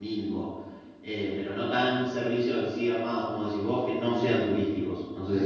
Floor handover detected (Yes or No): Yes